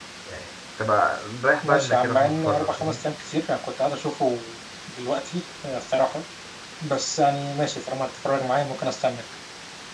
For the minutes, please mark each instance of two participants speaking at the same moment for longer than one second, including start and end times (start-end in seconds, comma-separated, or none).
1.6-3.0